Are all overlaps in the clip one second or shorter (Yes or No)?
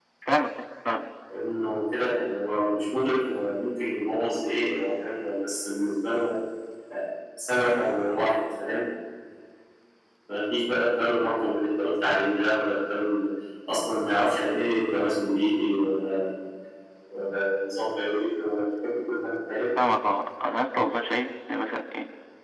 Yes